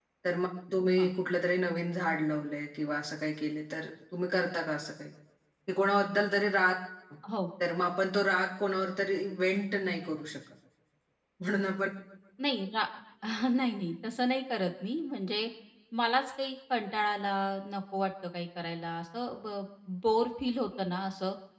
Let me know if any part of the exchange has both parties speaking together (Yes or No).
No